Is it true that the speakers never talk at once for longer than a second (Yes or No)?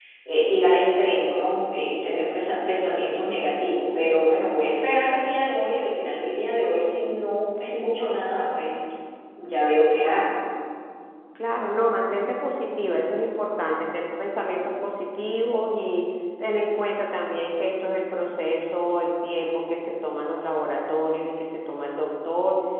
Yes